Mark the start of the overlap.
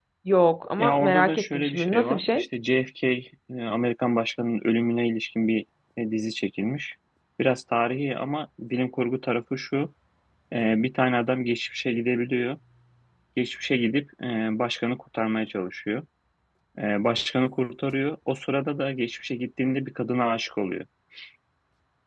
0.8 s

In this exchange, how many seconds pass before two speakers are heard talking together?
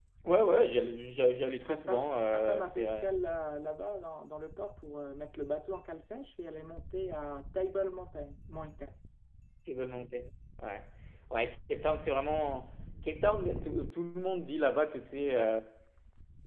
1.7 s

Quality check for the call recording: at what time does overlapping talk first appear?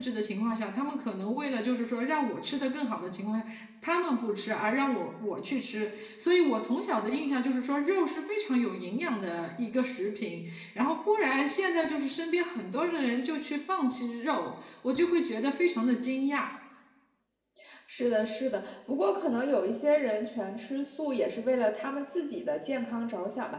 none

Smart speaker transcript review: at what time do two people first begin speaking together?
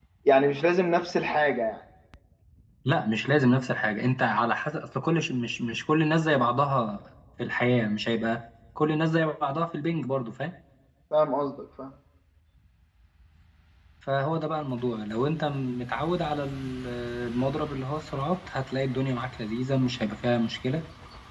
none

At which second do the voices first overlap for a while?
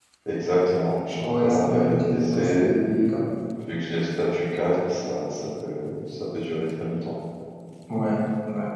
1.2 s

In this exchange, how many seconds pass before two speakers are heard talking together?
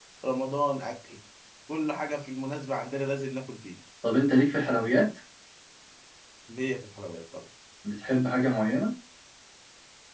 none

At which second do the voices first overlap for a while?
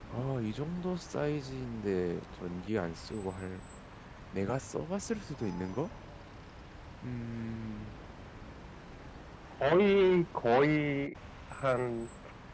none

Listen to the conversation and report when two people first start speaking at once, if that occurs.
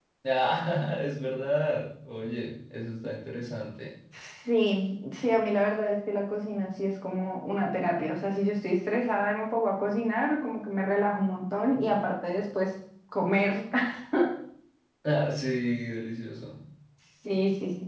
none

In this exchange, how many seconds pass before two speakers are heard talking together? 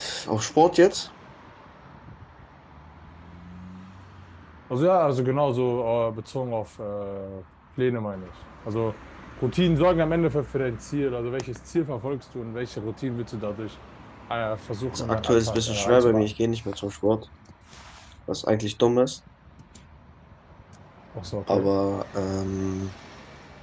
14.9 s

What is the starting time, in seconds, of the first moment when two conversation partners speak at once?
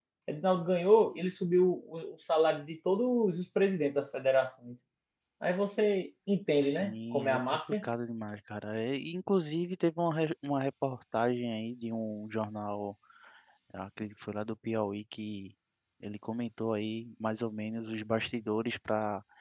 6.6 s

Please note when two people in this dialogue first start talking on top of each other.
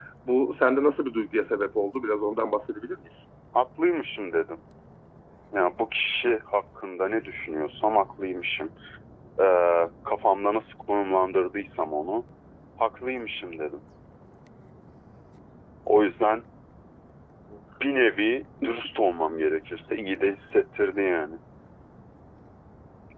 none

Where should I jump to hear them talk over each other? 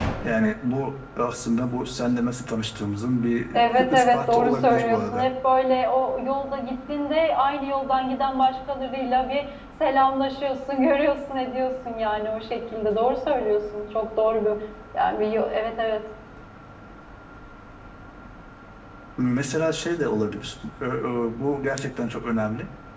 3.5 s

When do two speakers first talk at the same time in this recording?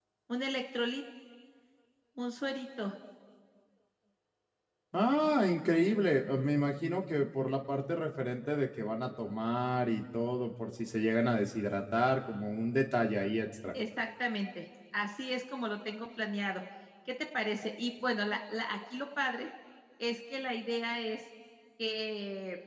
none

